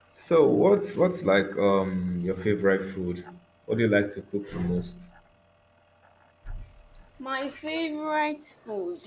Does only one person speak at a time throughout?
Yes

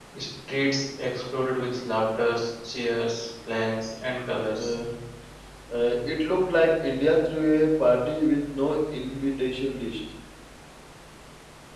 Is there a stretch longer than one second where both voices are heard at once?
No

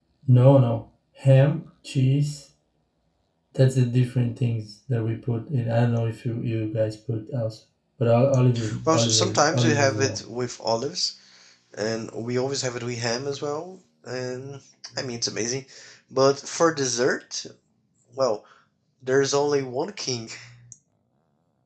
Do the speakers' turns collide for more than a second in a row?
Yes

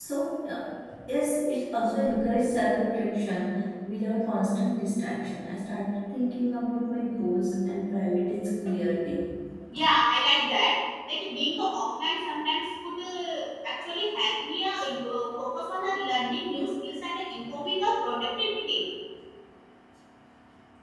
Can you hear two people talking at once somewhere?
No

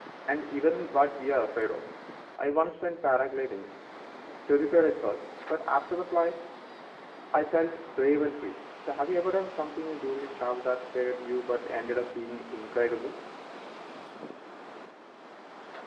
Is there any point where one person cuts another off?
No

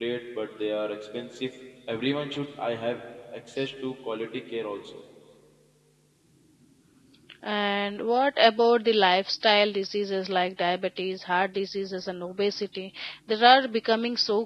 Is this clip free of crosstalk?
Yes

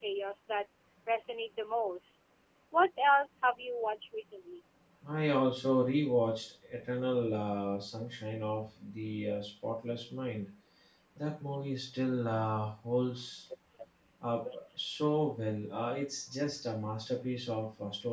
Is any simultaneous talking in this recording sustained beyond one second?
No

